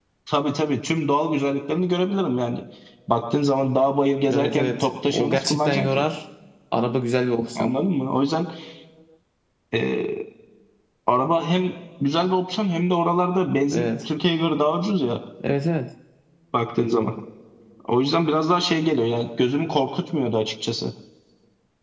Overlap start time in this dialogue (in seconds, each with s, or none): 4.3 s